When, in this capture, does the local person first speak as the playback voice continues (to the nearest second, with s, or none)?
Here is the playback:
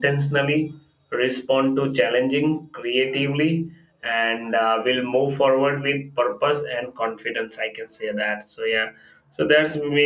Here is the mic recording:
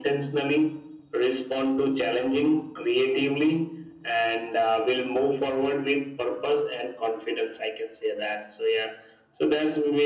none